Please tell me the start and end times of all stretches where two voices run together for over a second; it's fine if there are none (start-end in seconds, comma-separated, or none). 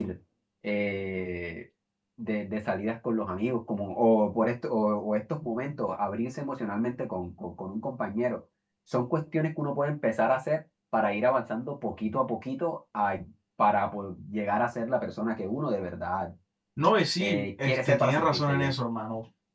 17.2-18.8